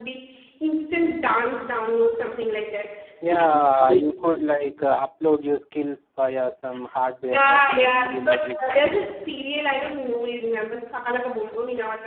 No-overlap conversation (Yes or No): No